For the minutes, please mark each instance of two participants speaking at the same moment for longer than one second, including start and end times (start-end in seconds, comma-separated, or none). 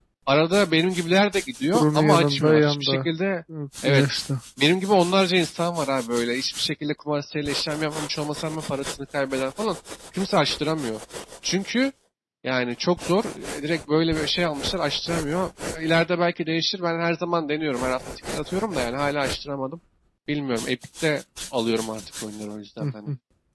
1.7-3.1